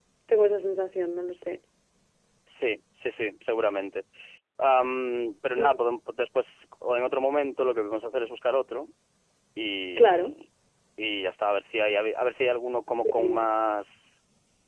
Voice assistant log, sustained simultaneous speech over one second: none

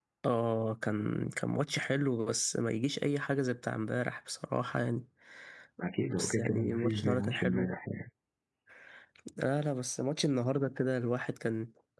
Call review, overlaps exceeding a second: present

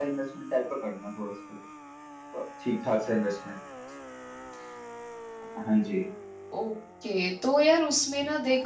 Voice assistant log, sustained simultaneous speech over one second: none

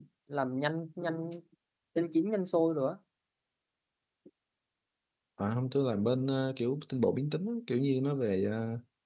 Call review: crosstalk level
none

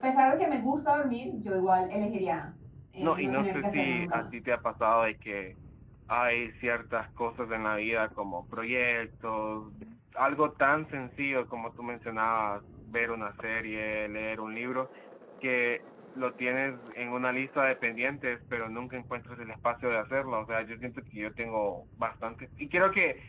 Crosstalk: present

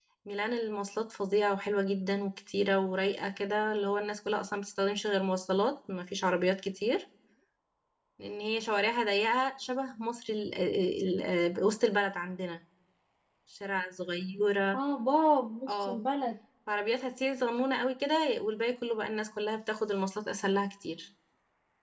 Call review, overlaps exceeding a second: none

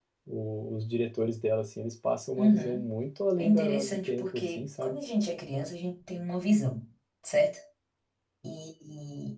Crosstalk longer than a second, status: present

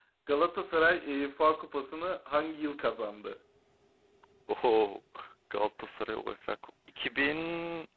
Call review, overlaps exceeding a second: none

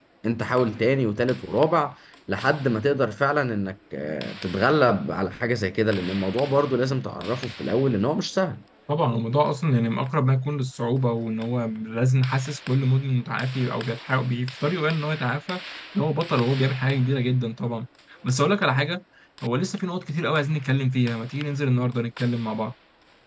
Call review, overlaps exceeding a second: none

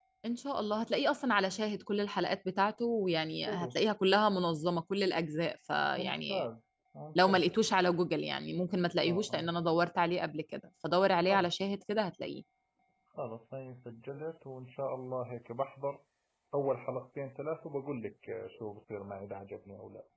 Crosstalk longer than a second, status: none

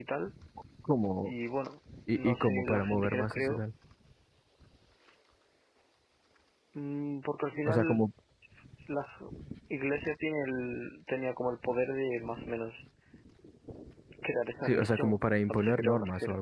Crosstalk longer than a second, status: present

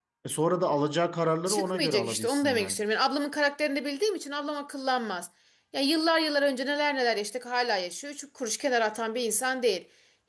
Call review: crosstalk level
present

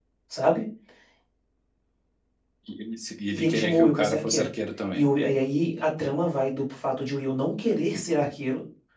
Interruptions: present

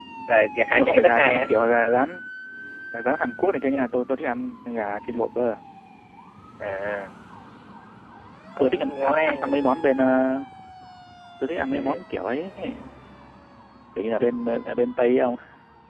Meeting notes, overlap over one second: present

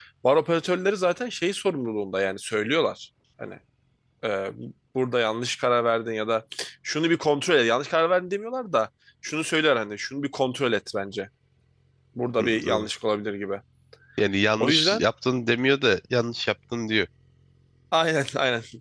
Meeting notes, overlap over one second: none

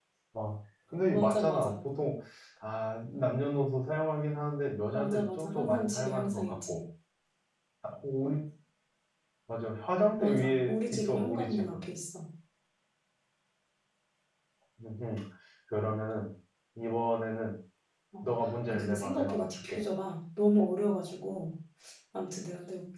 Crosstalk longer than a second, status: present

